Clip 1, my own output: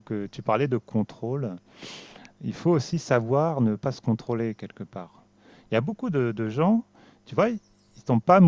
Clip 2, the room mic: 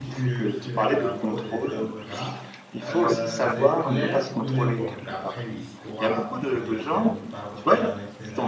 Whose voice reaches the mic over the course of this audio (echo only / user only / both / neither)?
both